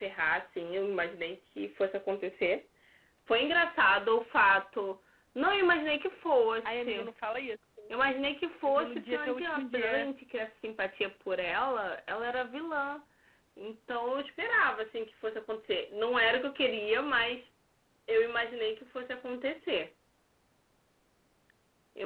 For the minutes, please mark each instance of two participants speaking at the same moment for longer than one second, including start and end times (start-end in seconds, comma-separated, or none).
8.7-10.1